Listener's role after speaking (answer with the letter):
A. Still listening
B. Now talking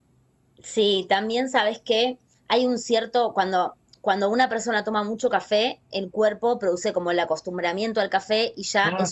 A